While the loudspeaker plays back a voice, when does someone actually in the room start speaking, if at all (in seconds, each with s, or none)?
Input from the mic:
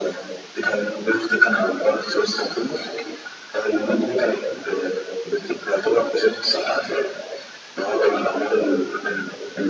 none